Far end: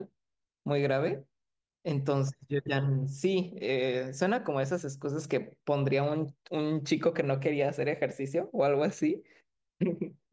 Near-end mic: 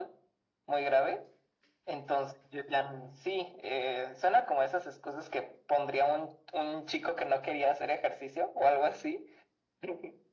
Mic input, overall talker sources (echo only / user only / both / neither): echo only